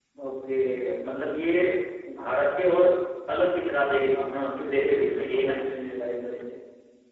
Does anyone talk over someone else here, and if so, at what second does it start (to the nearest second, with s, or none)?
4 s